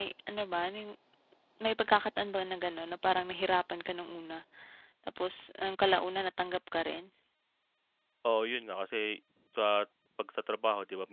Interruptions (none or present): none